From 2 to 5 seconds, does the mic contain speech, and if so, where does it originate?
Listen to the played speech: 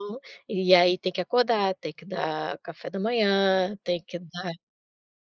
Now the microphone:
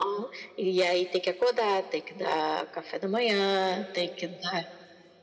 echo only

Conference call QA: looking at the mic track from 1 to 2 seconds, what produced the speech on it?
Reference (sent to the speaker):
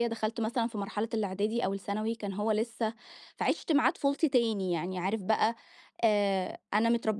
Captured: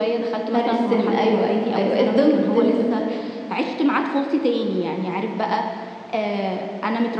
both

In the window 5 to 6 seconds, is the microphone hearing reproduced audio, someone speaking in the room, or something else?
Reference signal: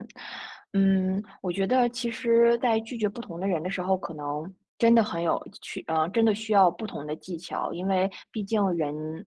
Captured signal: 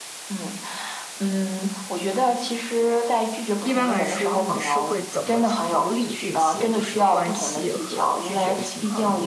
both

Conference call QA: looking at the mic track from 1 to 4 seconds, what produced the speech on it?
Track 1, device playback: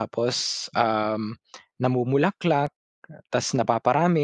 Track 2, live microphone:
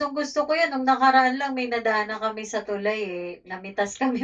user only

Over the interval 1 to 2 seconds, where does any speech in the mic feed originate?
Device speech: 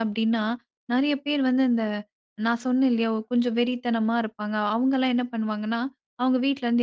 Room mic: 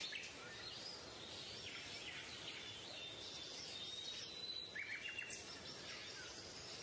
neither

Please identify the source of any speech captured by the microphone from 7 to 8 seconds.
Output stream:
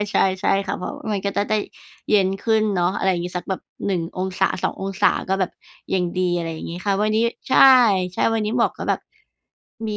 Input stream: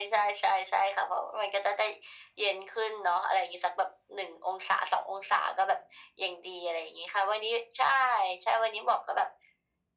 echo only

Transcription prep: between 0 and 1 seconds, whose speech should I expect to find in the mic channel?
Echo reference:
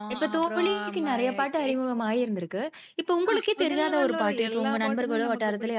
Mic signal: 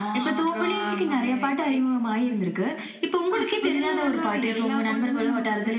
echo only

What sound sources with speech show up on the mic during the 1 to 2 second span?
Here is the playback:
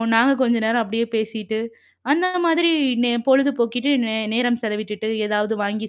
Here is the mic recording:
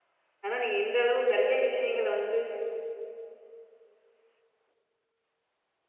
user only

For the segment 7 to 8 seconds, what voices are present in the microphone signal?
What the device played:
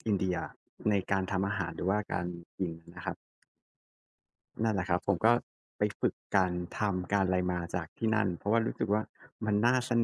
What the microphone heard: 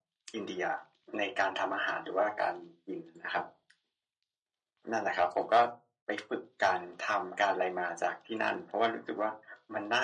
echo only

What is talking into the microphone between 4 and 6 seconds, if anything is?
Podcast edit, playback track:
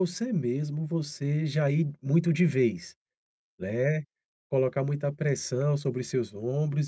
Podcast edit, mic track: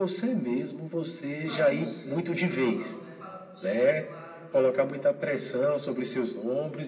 both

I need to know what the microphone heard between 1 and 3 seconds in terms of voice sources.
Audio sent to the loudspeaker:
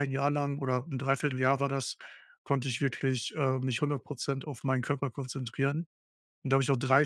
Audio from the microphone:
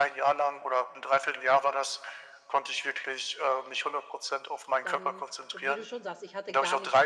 echo only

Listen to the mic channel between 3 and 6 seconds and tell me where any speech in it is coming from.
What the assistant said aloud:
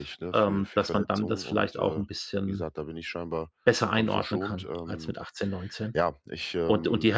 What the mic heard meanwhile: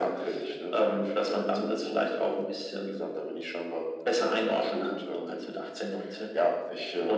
echo only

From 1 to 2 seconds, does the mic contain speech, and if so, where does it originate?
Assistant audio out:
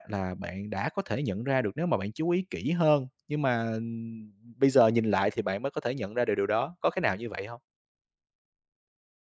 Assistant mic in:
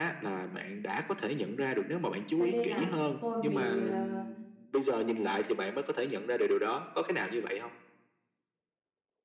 echo only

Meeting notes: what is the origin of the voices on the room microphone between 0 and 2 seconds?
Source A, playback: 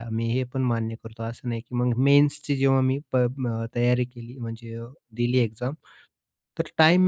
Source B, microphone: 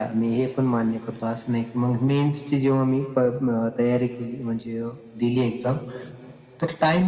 echo only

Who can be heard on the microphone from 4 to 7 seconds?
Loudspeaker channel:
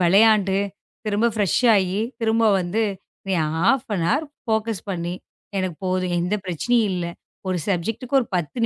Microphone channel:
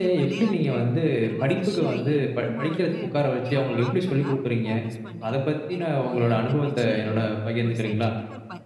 both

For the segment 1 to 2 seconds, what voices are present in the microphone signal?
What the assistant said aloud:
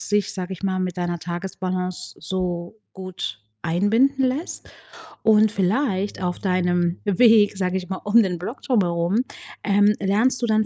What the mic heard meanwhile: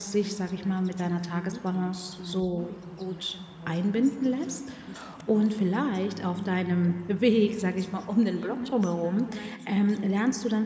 both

